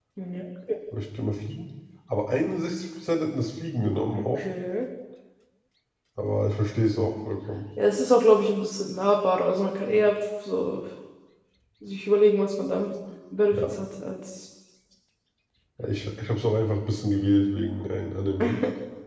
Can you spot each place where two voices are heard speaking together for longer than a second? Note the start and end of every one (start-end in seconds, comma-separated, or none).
none